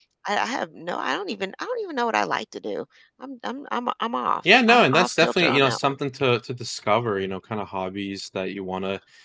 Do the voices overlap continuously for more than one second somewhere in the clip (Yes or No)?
Yes